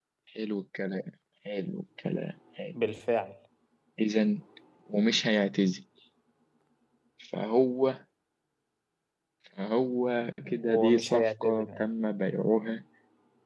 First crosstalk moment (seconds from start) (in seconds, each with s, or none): 10.4 s